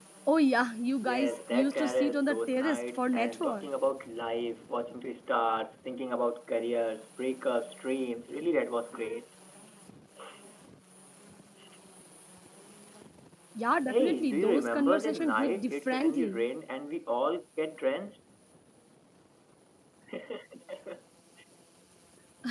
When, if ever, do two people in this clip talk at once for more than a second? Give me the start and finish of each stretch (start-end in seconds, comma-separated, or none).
1.0-3.7, 13.9-16.4